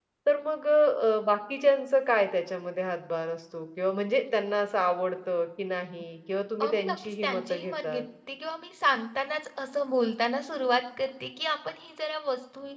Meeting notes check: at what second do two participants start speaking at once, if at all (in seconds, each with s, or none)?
6.6 s